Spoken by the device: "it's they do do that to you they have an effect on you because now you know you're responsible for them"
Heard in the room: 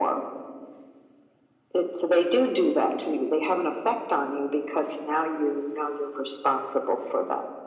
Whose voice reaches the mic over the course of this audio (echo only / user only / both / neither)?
echo only